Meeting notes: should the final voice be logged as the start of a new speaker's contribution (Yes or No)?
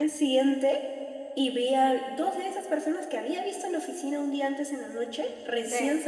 No